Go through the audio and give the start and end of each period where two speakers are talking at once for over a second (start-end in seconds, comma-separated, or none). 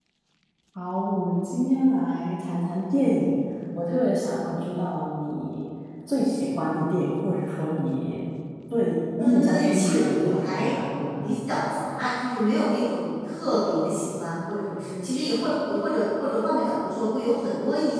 9.2-10.8